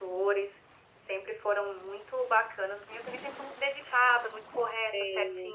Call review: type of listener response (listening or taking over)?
listening